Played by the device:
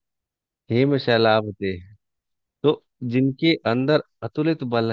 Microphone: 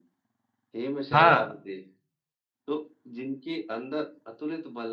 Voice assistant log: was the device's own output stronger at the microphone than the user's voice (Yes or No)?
No